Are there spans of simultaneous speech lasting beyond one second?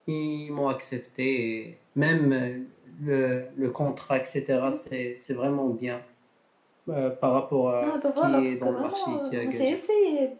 Yes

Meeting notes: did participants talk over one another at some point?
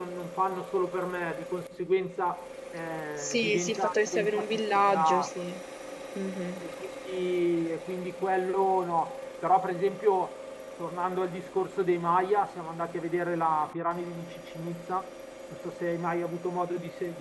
Yes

